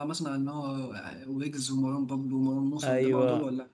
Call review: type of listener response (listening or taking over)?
taking over